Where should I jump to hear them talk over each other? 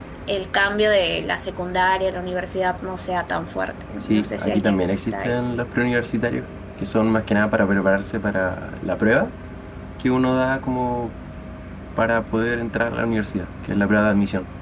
4.0 s

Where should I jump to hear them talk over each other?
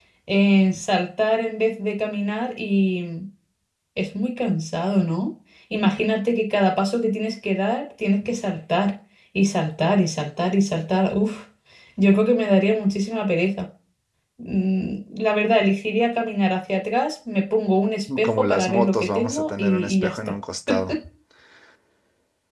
18.2 s

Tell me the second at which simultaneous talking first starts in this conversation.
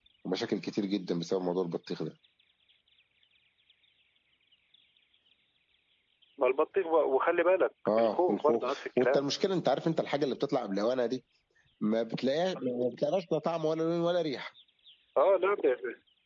7.9 s

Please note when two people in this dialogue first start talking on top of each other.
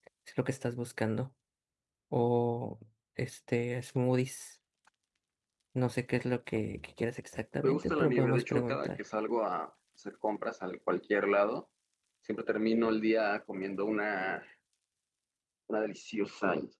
7.6 s

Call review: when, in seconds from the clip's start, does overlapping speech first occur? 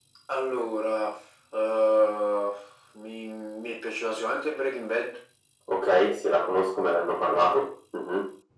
none

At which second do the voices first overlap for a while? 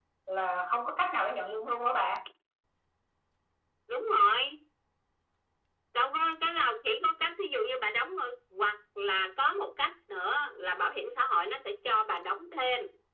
none

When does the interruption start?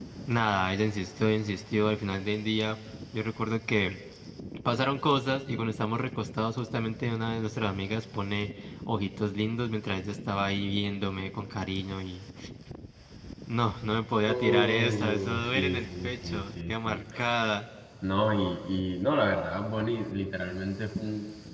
14.2 s

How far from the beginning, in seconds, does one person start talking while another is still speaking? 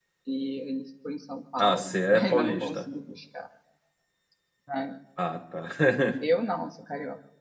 1.6 s

